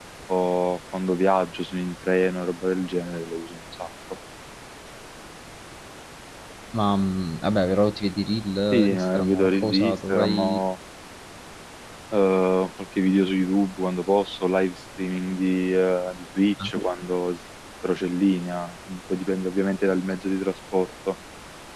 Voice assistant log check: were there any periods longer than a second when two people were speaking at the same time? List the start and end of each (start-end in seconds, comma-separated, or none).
8.7-10.6